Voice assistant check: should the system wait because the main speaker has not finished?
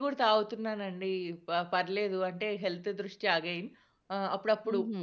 Yes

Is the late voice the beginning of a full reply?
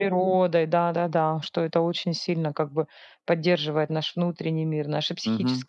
Yes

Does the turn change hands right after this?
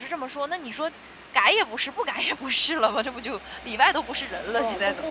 Yes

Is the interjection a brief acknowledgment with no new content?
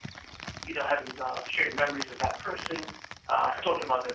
Yes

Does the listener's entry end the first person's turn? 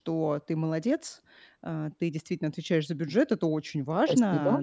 No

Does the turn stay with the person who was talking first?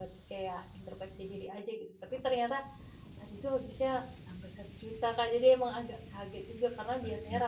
Yes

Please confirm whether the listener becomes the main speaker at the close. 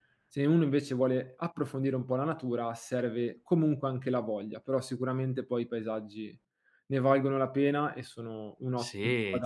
Yes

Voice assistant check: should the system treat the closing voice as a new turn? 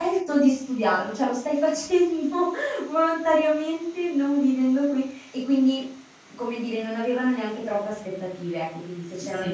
Yes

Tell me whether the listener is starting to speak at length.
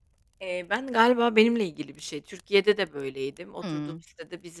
No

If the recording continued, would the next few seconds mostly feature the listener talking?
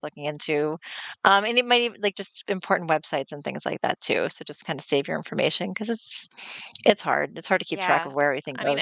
Yes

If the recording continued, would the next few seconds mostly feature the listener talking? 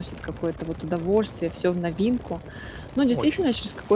No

